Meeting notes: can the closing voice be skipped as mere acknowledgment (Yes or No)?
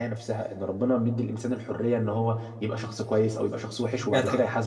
No